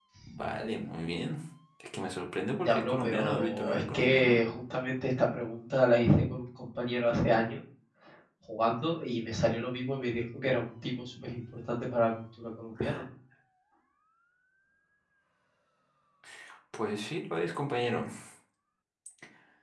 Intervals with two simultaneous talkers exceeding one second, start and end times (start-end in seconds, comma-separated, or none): 2.6-4.4